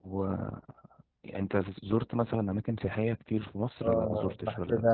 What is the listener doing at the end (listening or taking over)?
taking over